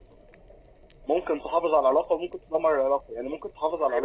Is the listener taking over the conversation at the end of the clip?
No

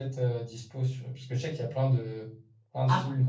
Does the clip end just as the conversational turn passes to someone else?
No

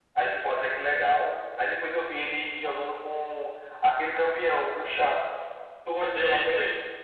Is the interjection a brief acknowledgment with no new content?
No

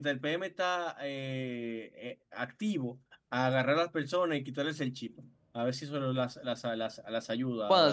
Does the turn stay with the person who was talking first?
No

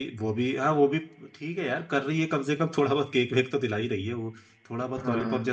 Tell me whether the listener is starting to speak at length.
Yes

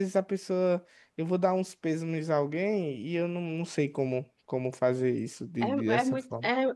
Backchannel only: No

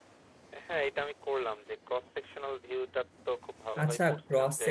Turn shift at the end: Yes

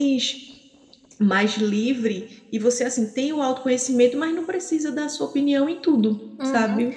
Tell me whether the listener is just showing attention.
No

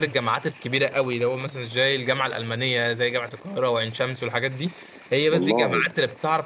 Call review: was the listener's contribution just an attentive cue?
Yes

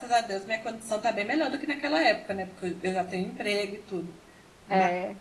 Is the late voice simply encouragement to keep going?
Yes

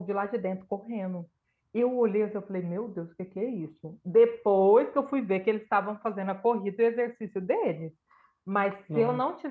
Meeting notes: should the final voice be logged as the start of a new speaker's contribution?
No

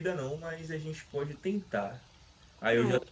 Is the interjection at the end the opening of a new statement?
No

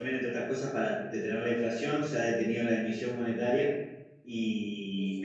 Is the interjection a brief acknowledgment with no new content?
Yes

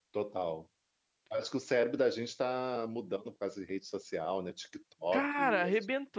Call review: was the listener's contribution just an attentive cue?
No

